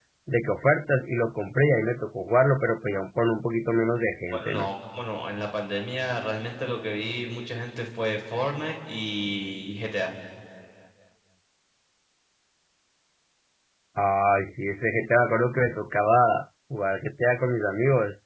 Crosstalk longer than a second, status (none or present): none